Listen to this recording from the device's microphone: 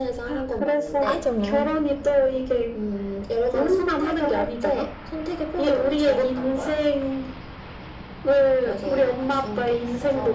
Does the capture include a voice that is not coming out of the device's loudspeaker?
Yes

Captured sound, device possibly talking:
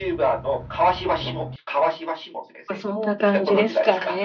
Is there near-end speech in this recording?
Yes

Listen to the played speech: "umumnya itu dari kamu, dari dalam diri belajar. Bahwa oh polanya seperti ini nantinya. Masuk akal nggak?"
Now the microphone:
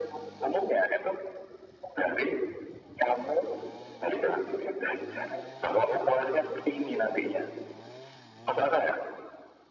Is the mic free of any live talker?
Yes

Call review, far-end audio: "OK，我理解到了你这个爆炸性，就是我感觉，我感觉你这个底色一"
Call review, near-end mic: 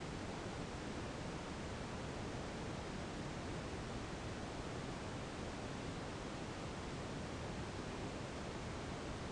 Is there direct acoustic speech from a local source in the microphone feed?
No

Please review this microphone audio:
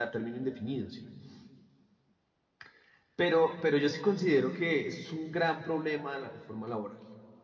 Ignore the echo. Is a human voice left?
Yes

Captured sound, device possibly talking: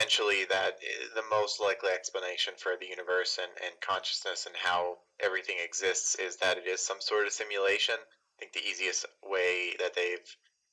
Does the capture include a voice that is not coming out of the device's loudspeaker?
No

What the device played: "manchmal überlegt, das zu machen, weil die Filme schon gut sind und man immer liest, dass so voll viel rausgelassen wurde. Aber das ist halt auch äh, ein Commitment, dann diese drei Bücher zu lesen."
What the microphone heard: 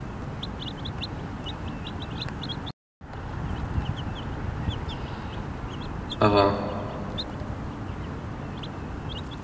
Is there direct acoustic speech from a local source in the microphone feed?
Yes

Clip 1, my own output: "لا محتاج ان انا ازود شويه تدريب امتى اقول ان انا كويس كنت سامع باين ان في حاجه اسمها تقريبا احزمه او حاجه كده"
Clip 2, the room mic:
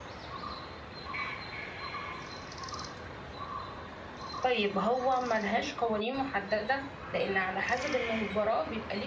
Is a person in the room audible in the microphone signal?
Yes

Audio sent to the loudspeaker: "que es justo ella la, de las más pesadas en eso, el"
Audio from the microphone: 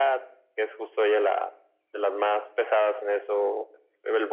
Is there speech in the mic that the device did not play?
No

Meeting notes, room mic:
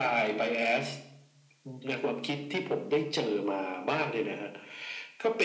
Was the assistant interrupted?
No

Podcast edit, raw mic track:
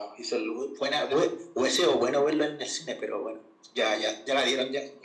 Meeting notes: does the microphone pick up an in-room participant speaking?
No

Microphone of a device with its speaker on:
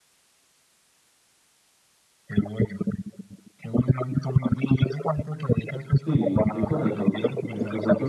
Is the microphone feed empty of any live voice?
No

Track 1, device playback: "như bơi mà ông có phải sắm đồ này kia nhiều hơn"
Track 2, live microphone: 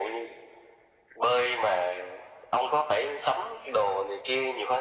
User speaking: No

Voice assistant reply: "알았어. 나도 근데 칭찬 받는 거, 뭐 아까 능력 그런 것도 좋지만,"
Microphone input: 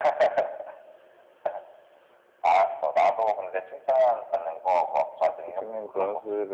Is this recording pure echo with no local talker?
No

